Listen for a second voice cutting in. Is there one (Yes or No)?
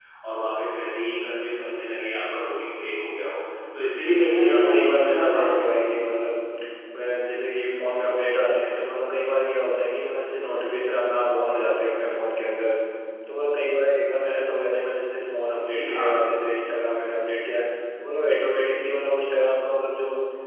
Yes